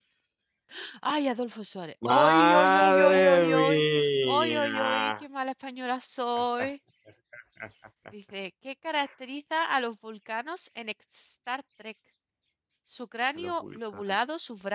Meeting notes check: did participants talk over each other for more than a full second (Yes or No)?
Yes